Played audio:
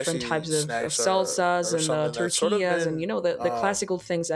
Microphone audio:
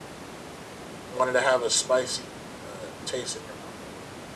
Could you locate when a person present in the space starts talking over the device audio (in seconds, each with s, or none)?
1.1 s